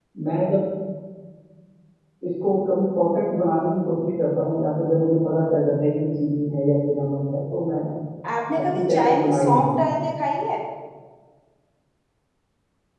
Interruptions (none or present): present